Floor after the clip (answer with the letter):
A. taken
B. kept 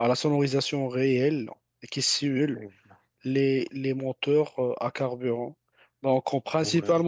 B